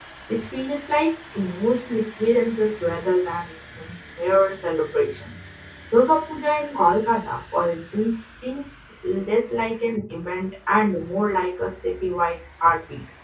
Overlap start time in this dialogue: none

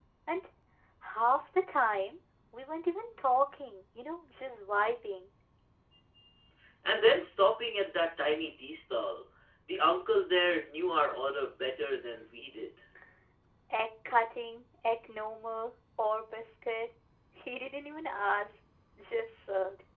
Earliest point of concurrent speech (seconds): none

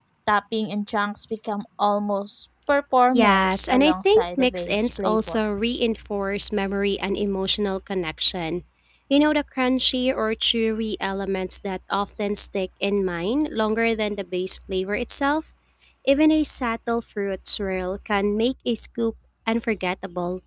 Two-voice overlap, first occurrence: 3.1 s

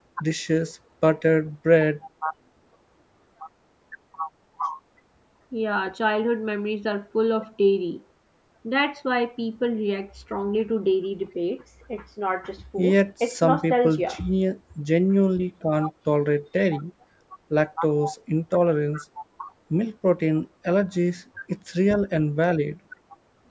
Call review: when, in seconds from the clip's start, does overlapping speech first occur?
12.8 s

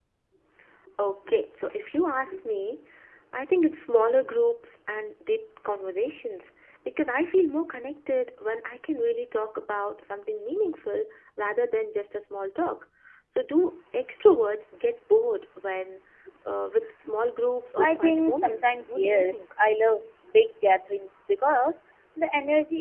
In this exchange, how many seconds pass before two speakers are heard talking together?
17.8 s

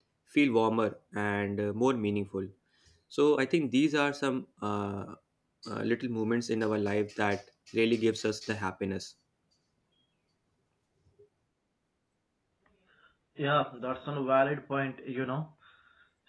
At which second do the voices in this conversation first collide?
none

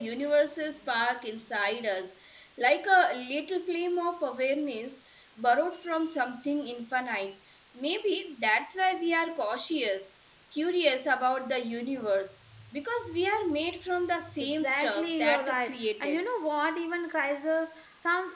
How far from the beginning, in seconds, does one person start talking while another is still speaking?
14.4 s

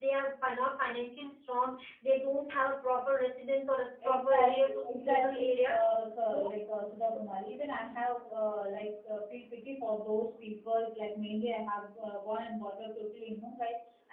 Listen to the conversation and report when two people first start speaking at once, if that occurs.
4.0 s

